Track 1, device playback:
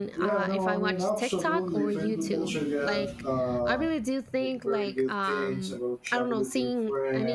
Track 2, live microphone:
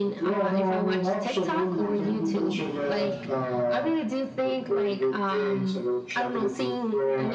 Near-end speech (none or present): none